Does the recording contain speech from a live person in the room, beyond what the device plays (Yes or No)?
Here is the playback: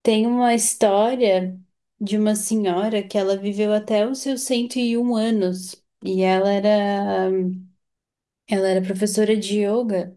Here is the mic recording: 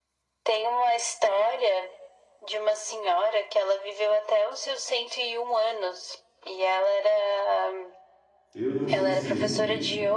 Yes